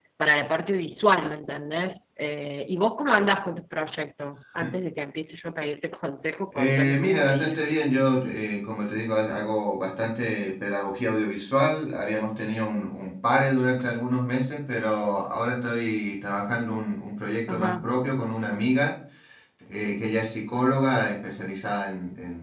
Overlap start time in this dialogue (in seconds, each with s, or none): 6.6 s